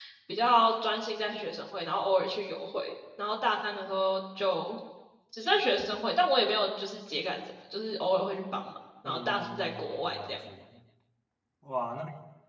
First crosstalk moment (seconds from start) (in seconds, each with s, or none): 9.0 s